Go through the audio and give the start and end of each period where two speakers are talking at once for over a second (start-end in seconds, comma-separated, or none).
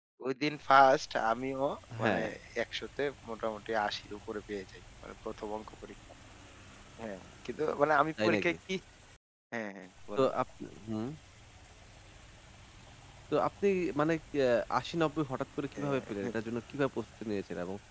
none